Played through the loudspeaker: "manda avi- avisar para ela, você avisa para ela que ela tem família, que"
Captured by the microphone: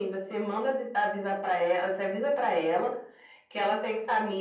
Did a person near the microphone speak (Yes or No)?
No